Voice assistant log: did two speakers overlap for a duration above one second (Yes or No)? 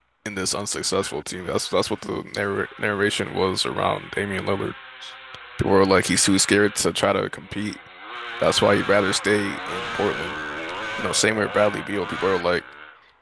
No